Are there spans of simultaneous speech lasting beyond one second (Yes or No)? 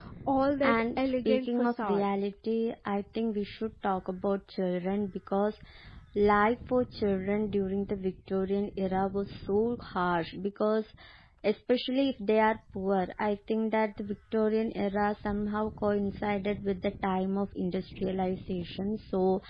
Yes